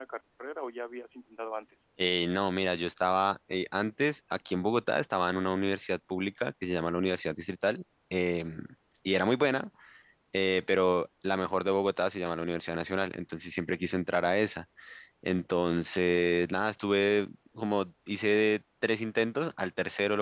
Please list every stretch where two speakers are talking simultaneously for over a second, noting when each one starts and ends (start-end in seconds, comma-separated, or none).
none